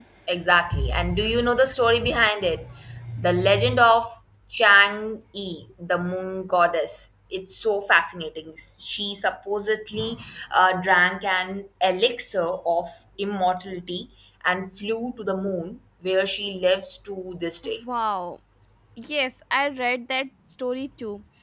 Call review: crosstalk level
none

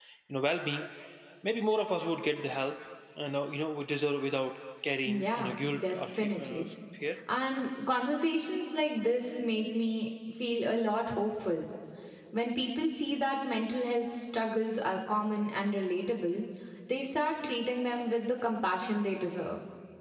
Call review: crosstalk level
present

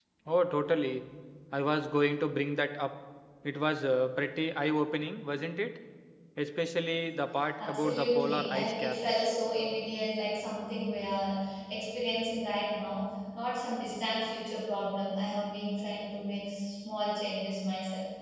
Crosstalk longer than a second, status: present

